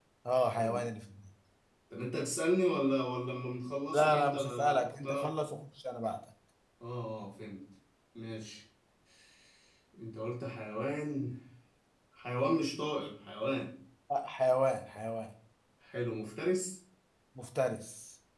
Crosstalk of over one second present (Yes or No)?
Yes